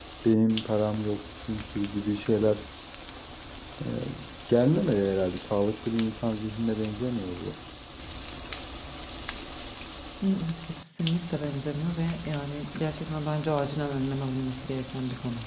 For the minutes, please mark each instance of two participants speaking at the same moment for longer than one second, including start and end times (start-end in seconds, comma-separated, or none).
none